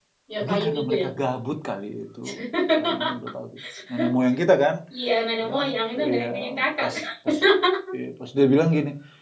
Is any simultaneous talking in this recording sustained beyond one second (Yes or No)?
Yes